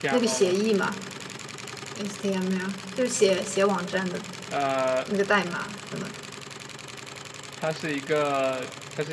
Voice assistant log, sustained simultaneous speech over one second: none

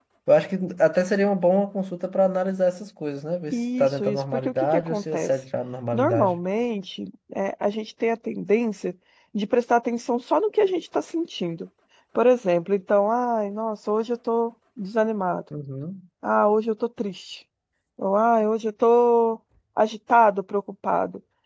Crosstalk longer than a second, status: present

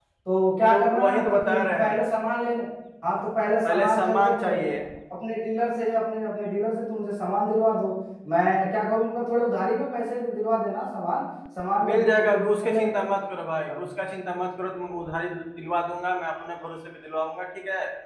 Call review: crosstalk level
present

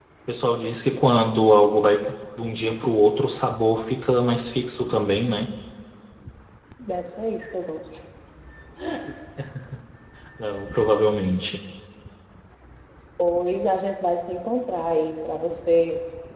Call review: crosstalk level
none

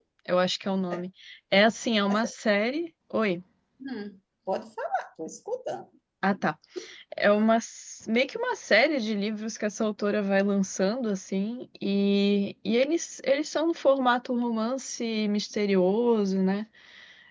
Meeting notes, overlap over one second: none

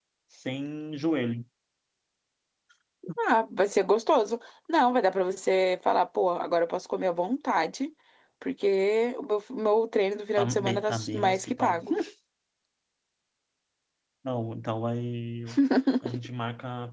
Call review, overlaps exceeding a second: present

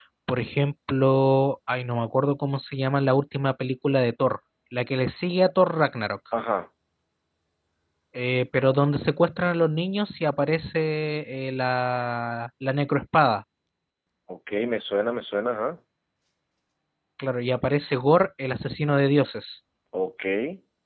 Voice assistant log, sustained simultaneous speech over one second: none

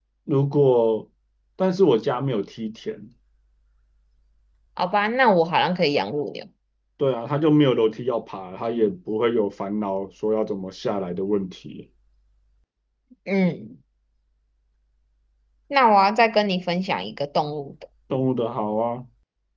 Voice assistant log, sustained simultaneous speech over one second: none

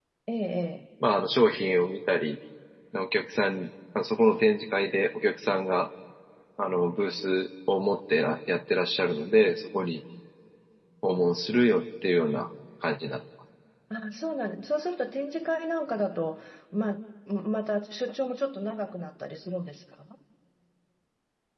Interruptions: none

